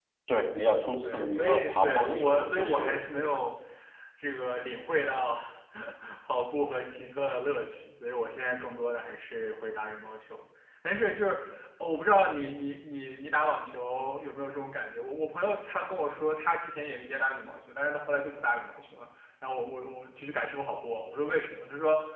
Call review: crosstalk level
present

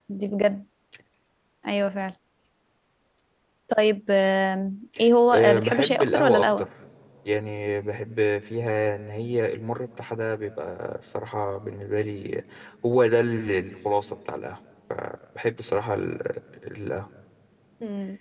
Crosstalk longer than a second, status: present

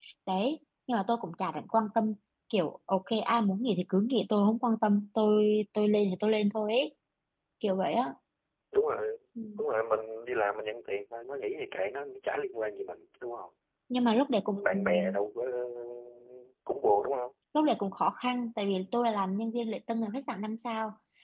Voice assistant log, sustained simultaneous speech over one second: none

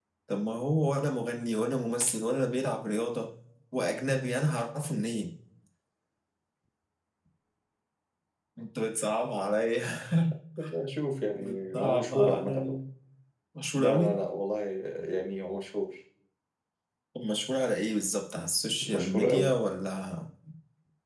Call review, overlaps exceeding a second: present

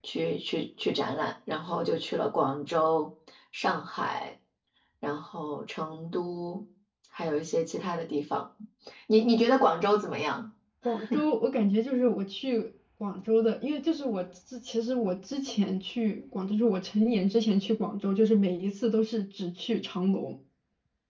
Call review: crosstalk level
none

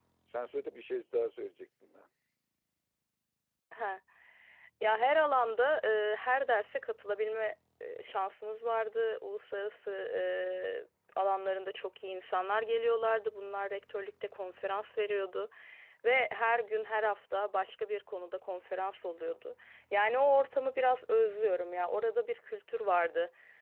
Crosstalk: none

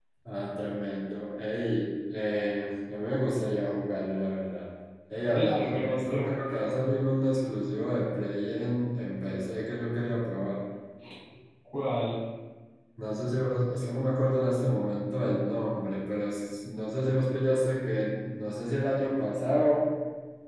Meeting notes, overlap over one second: present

